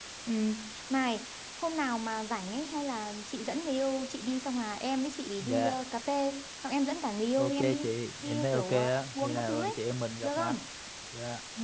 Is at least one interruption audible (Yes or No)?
Yes